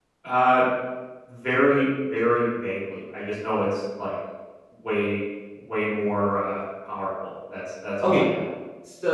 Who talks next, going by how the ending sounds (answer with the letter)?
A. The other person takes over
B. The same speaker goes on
A